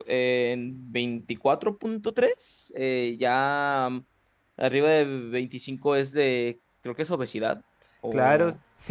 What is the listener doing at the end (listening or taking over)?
taking over